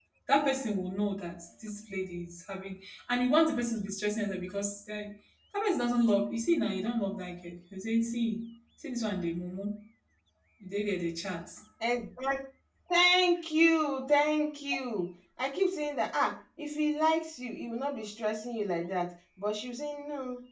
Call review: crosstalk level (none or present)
none